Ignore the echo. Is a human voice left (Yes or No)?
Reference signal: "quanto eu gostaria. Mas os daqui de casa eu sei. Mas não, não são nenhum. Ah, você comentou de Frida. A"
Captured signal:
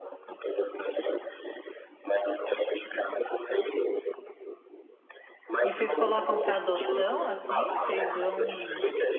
Yes